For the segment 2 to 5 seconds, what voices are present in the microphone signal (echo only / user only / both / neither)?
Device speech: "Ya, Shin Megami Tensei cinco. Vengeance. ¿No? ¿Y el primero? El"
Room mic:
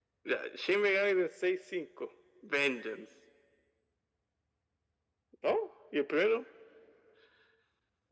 echo only